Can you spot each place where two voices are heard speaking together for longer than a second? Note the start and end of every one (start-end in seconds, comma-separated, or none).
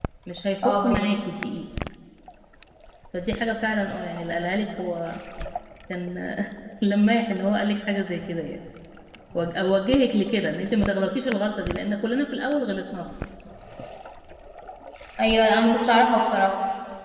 none